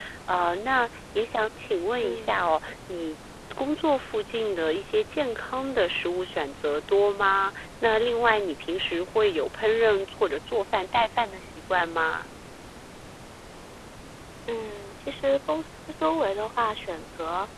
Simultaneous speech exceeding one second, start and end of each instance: none

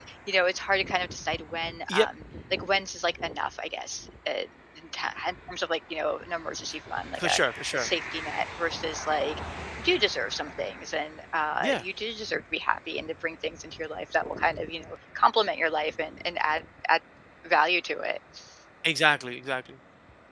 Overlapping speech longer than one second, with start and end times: none

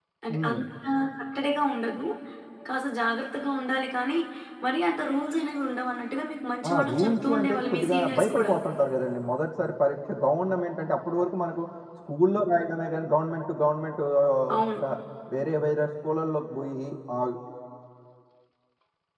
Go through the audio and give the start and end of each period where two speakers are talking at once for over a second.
6.7-8.5

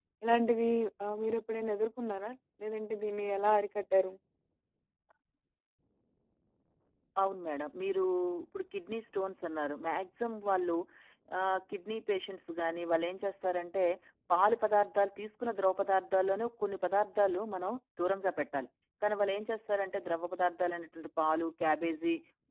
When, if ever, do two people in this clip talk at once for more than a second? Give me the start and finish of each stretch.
none

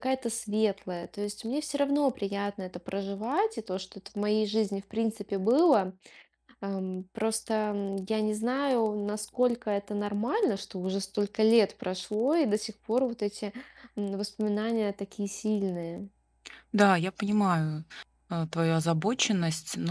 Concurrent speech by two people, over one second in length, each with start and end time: none

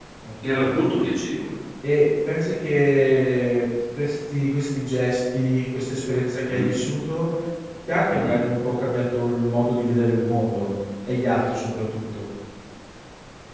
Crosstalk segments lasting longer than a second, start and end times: none

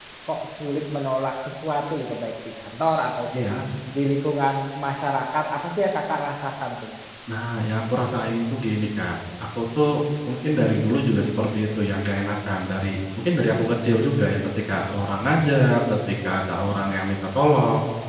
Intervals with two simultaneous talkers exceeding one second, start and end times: none

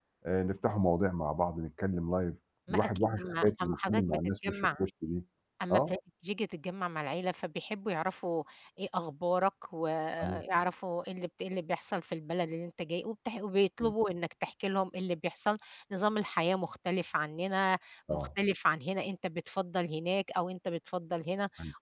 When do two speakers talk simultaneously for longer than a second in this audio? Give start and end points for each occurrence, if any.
2.7-4.8

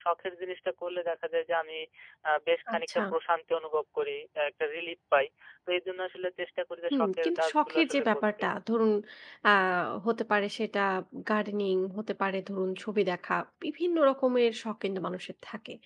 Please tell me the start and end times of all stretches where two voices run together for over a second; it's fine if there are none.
6.9-8.4

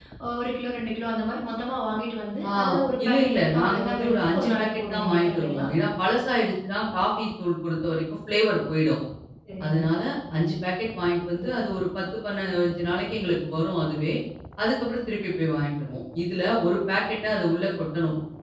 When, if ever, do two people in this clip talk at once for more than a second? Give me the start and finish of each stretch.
3.0-5.7

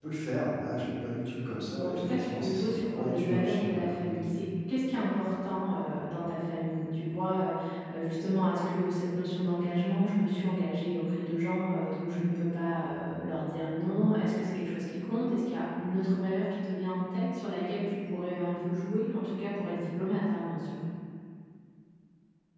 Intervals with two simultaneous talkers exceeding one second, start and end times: 1.7-4.1

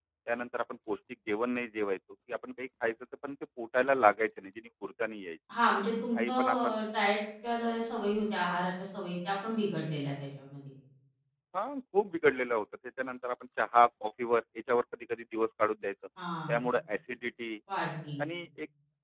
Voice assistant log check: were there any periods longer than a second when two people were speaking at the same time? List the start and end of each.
none

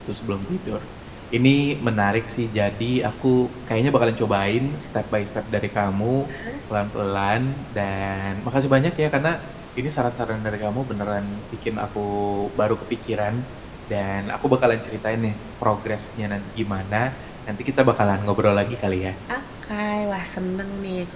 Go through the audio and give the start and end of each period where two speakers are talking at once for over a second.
none

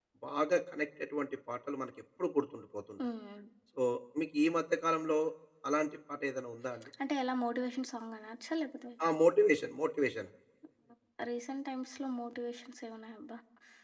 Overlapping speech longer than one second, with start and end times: none

